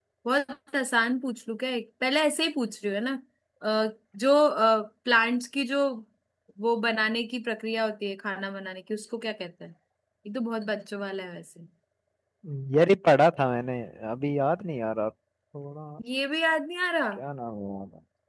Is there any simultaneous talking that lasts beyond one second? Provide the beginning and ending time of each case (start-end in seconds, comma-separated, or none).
none